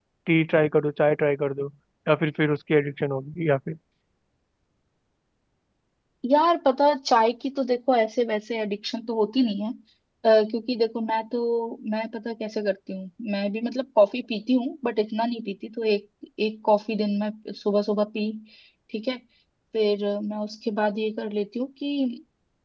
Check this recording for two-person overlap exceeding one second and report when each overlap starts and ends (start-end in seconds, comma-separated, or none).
none